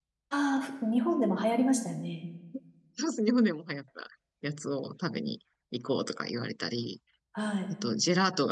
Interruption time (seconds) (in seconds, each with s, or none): none